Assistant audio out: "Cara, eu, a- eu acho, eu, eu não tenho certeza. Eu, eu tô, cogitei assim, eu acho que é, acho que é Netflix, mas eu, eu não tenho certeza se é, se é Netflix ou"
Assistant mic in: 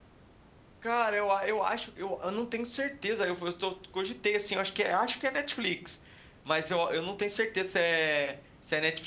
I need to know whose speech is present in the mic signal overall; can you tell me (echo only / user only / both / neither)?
echo only